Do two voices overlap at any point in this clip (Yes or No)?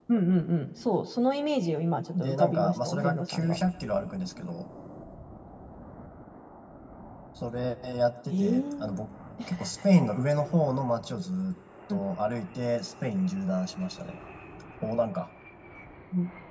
Yes